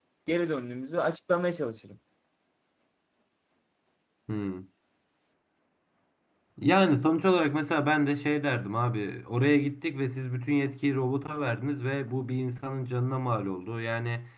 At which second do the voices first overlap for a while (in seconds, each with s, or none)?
none